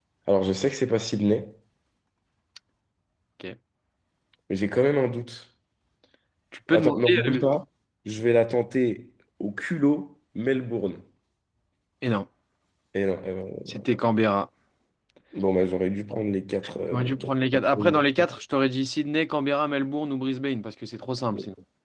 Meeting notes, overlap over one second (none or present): present